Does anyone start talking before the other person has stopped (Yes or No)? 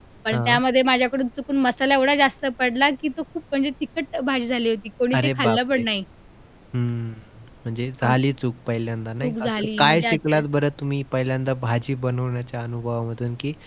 Yes